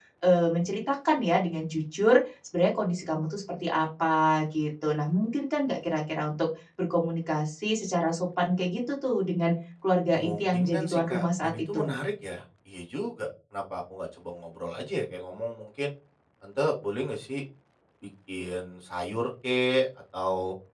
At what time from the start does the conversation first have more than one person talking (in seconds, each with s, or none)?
10.1 s